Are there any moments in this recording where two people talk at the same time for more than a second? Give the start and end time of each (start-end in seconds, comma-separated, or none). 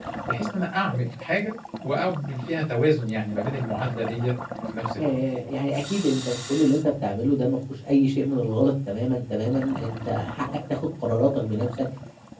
none